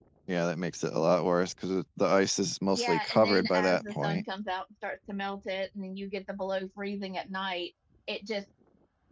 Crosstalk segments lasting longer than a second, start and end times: 2.8-4.2

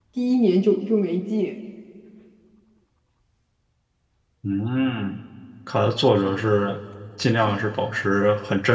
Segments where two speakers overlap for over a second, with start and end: none

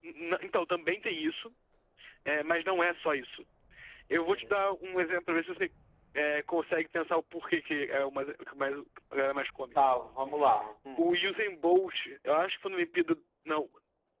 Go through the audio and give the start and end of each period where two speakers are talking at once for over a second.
none

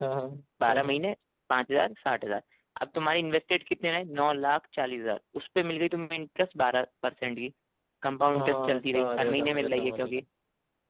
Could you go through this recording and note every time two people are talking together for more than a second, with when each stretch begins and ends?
8.4-10.2

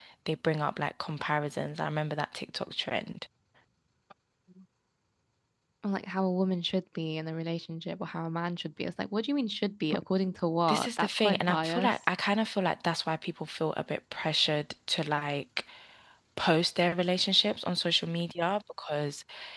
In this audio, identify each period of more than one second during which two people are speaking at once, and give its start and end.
10.7-11.9

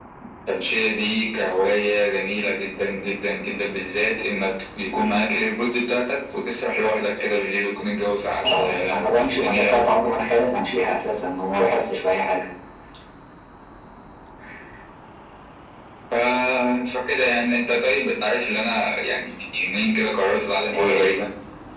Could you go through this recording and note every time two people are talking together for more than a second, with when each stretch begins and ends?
8.4-9.9

